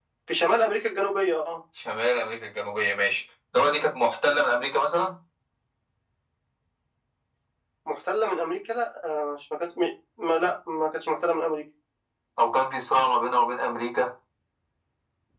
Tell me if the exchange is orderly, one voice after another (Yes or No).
Yes